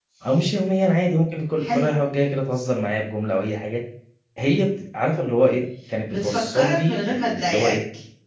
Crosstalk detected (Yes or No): Yes